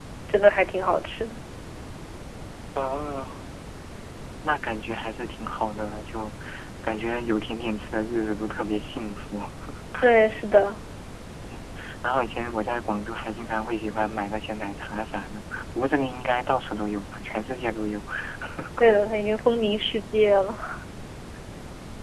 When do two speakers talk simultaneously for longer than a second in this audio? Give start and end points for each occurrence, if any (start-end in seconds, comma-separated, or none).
none